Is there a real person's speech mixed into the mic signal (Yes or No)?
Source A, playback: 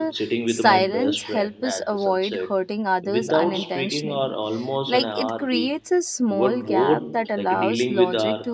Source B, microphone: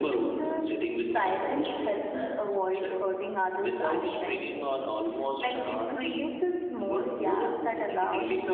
No